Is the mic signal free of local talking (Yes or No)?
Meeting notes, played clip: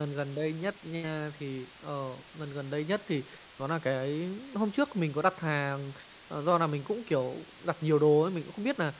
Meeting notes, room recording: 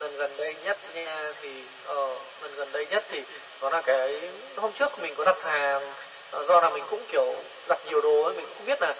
Yes